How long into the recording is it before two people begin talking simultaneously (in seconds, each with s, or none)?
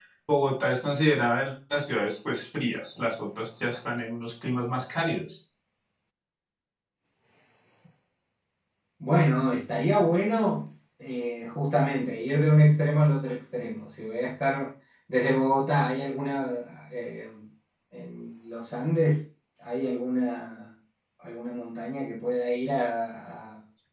none